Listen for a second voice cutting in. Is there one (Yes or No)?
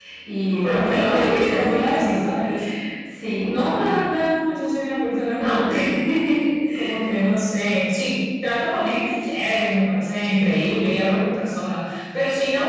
Yes